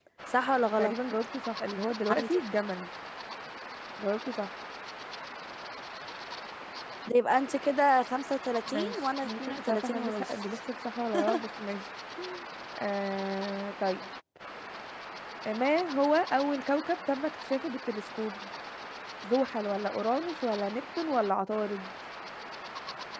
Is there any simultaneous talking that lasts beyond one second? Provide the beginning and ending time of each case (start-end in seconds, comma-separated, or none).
8.7-10.3